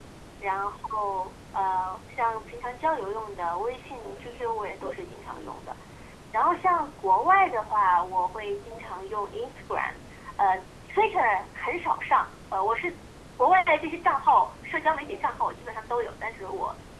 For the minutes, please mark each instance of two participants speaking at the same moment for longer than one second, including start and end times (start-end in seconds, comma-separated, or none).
none